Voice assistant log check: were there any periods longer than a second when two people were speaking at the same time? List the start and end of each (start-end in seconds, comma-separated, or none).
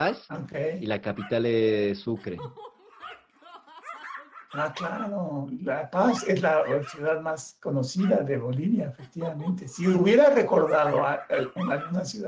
none